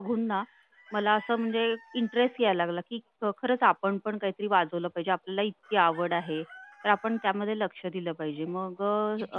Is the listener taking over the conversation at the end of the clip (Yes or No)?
Yes